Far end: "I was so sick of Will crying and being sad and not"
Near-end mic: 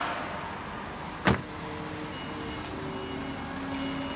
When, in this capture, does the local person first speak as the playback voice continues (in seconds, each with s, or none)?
none